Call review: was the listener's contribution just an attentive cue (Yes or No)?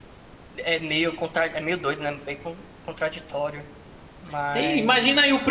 No